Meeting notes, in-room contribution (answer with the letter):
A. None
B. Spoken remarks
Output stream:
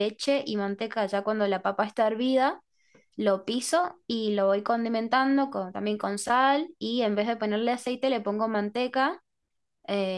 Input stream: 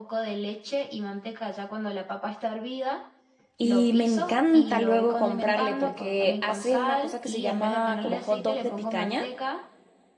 B